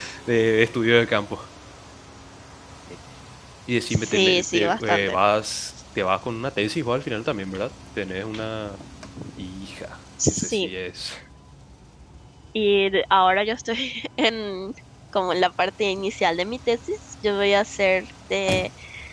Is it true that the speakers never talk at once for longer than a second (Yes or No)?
No